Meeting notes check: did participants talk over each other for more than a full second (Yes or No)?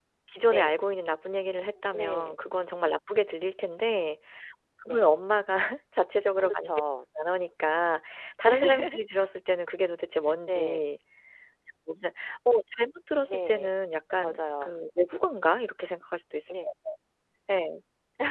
No